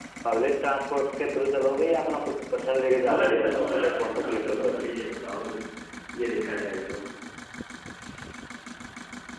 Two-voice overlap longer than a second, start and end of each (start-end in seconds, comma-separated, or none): 3.0-4.8